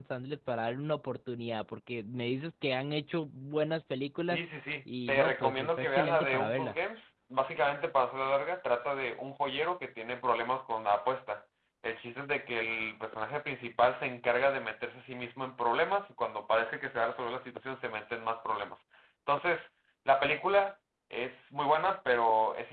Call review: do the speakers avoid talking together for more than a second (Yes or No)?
No